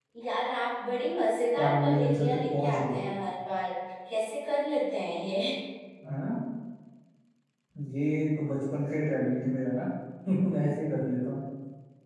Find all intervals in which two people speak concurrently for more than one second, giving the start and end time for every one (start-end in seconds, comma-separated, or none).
1.6-3.0